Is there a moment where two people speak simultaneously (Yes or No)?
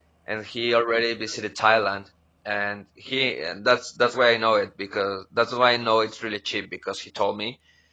No